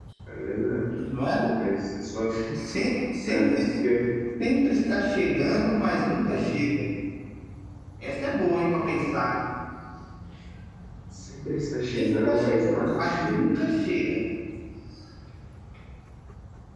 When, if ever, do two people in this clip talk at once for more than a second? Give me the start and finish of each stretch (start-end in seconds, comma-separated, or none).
12.0-13.5